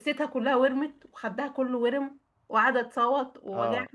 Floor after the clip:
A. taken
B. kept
A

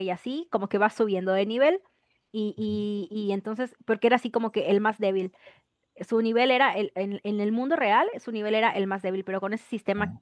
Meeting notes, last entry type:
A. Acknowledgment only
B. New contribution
A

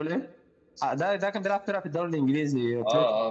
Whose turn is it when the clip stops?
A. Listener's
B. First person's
A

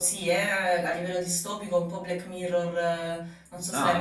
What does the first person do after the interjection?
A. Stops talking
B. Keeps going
A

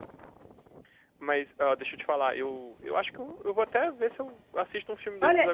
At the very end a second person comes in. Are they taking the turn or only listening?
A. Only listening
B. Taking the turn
B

